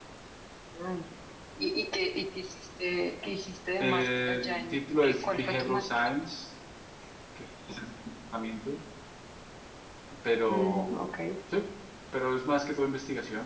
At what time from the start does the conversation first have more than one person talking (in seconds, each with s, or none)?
3.8 s